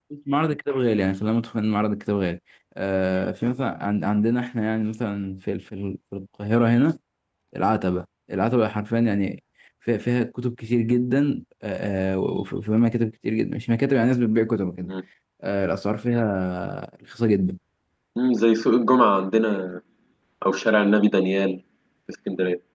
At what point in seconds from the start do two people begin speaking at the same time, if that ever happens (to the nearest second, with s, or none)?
none